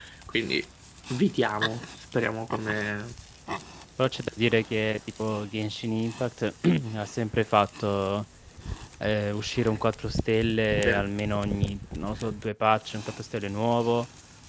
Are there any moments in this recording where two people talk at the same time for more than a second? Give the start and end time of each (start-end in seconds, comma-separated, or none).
none